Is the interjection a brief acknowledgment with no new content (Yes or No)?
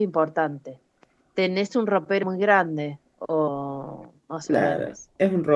No